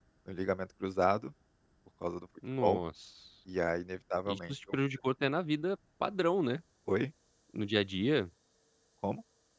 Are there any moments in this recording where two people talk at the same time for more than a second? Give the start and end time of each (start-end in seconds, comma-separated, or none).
none